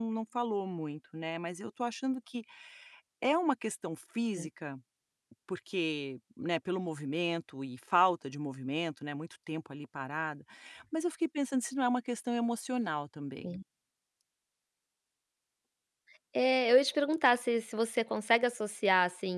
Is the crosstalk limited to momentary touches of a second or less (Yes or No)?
Yes